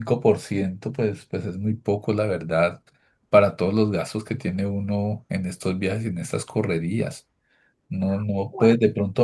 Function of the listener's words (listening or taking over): listening